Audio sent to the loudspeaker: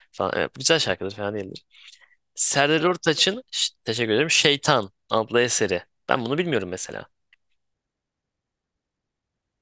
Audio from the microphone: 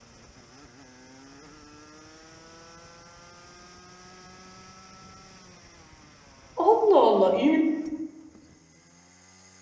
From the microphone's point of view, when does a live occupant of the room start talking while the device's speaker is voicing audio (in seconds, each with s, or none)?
6.5 s